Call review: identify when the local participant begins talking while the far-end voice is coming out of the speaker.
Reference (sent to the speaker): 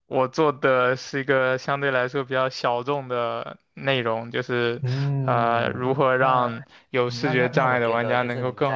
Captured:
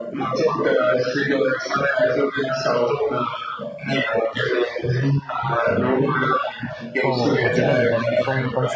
7 s

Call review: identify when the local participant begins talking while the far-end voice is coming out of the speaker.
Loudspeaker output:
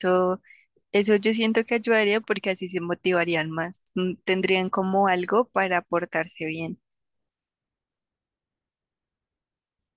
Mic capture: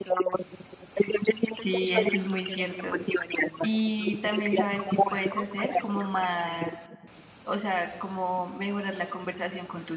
1 s

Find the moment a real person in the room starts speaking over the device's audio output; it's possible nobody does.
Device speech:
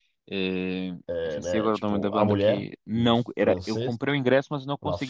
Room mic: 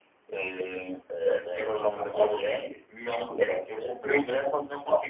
none

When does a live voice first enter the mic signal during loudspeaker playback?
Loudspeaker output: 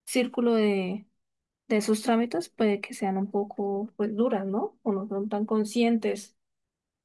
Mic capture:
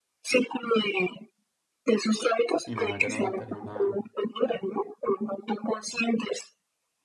3 s

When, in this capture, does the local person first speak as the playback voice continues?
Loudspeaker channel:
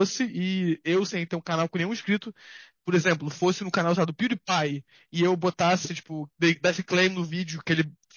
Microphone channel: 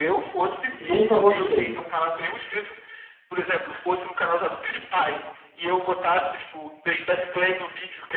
1 s

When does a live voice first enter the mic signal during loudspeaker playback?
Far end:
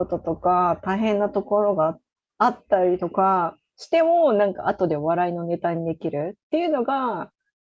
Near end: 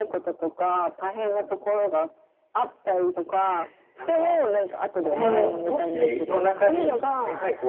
3 s

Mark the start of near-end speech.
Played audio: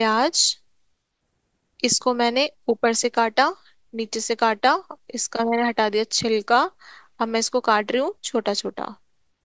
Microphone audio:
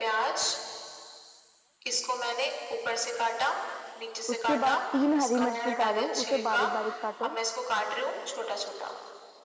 4 s

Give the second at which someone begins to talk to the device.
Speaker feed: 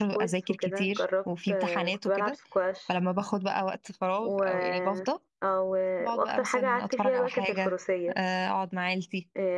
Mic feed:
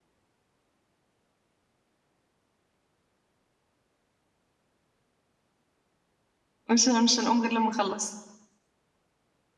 7 s

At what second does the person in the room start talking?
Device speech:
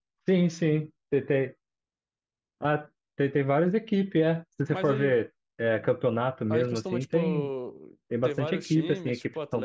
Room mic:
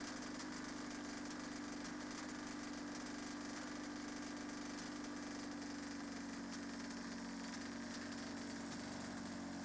none

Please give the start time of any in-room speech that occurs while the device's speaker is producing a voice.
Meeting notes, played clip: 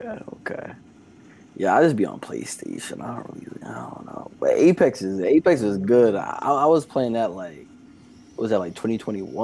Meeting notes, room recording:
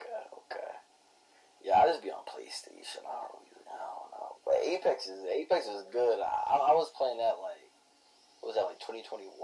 none

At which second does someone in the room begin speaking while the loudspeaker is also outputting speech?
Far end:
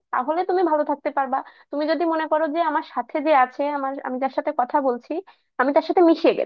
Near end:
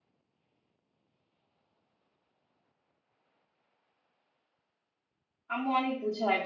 6 s

